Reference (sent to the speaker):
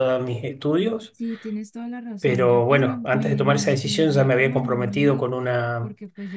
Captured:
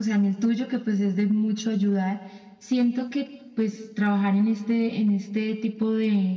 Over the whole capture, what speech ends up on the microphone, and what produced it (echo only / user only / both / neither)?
user only